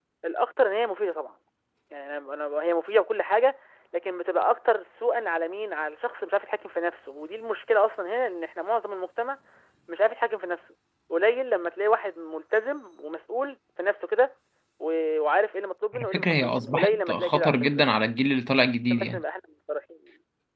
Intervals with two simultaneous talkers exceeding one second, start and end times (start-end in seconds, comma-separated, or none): 15.9-17.6